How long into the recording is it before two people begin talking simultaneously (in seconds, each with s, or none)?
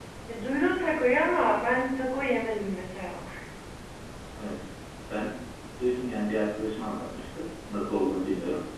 none